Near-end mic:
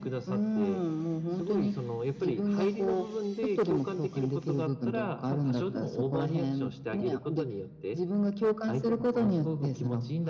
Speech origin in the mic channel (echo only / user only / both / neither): echo only